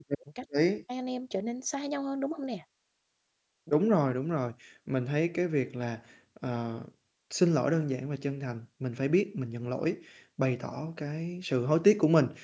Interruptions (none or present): none